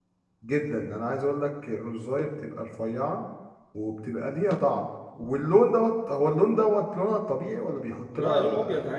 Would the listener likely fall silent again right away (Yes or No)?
No